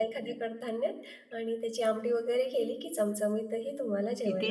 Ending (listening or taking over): taking over